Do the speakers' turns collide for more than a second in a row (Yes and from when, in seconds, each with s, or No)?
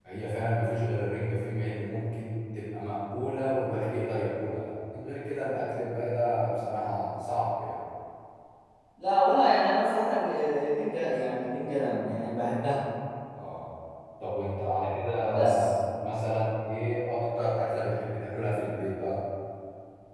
No